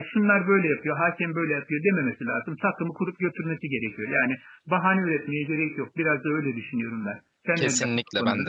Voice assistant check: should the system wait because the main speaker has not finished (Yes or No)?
No